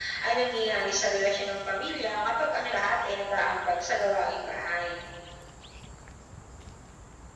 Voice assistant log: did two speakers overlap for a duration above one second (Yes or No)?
No